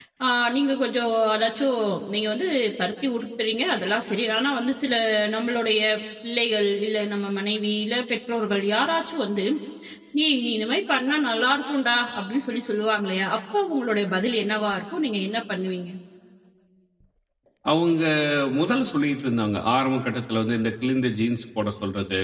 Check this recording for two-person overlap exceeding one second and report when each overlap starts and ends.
none

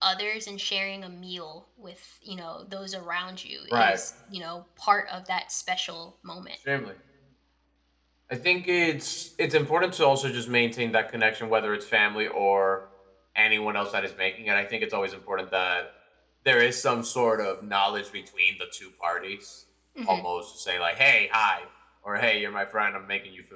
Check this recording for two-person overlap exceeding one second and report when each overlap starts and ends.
none

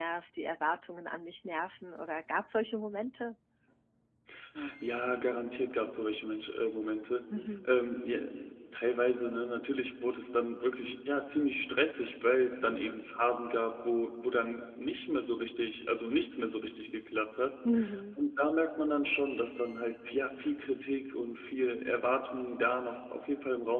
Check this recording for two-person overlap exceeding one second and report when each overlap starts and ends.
none

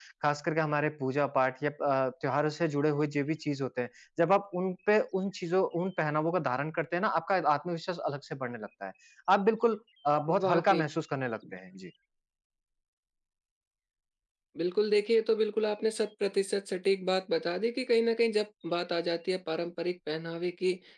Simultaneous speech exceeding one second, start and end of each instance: none

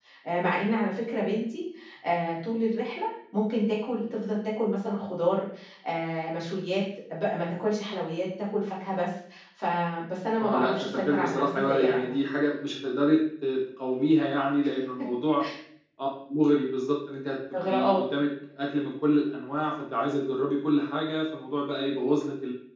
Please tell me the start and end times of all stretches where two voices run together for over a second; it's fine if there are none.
10.4-12.2

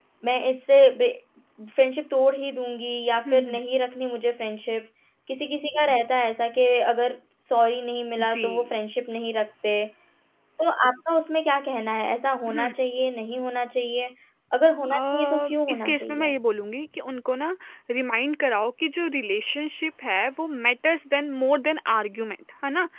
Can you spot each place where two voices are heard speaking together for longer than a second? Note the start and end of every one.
14.9-16.3

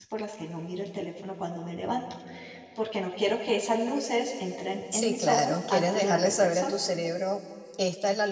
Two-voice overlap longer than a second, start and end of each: 4.9-6.7

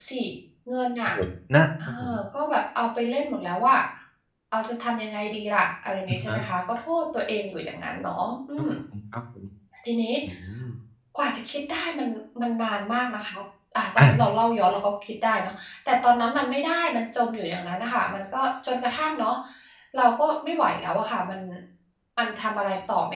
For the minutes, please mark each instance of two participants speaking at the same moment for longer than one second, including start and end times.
none

